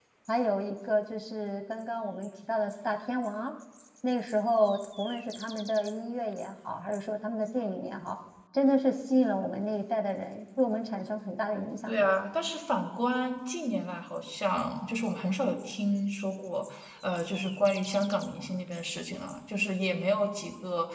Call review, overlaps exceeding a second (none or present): none